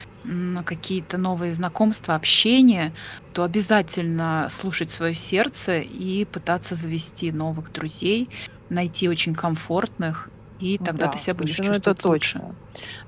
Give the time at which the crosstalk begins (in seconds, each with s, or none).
10.8 s